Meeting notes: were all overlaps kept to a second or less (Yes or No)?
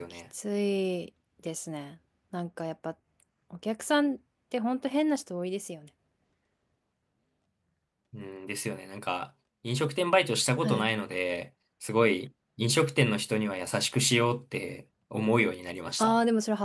Yes